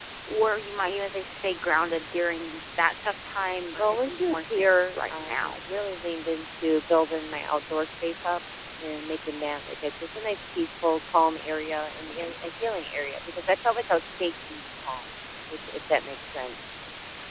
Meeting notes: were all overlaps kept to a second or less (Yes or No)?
No